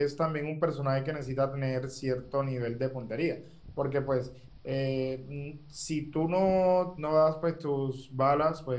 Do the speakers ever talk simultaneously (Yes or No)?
No